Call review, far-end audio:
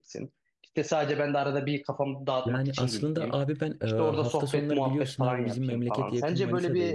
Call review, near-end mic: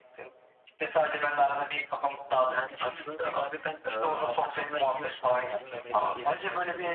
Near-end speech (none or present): none